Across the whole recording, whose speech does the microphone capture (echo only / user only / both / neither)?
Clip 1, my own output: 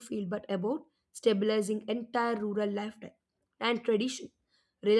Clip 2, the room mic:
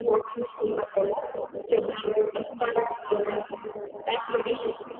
echo only